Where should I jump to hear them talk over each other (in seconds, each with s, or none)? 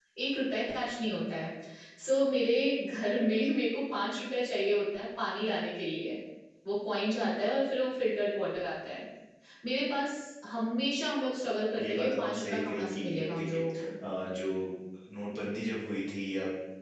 11.8 s